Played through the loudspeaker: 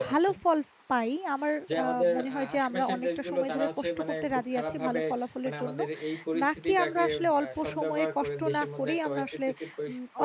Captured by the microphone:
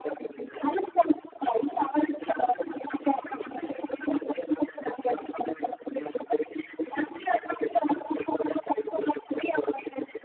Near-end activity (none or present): none